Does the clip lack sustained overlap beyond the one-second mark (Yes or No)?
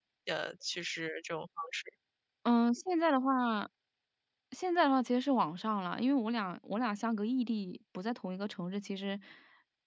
Yes